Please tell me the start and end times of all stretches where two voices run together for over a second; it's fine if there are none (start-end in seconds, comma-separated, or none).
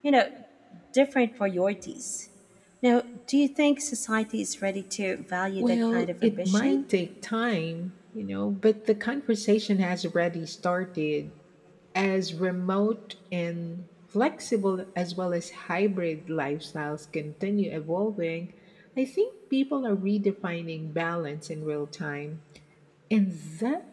5.6-6.8